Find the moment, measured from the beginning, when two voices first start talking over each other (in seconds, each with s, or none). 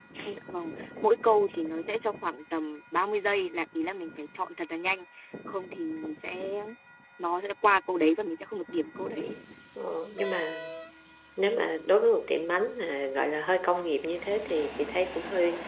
none